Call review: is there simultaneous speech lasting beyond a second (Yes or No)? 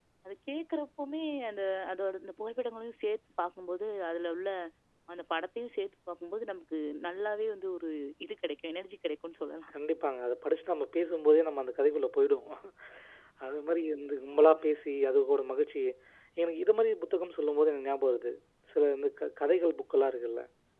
No